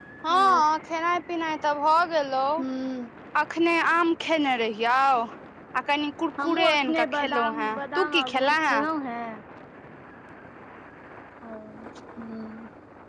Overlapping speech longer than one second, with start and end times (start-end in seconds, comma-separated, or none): 6.4-8.8